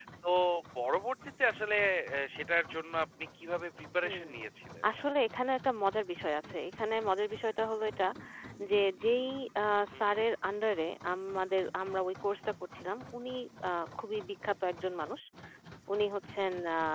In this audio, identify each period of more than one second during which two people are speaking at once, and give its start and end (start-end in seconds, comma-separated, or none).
none